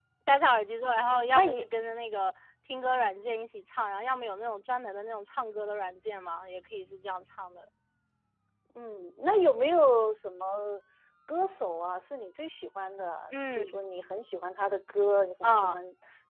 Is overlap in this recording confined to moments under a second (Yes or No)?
Yes